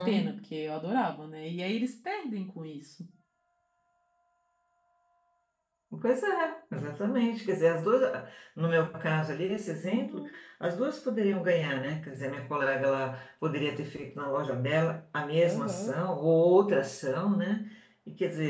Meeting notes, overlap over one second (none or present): none